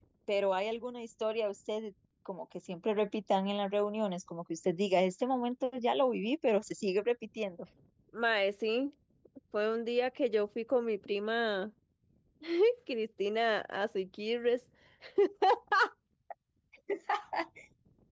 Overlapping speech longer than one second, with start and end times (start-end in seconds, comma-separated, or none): none